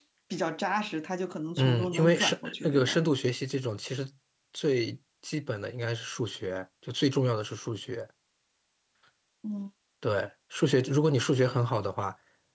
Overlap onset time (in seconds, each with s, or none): 1.6 s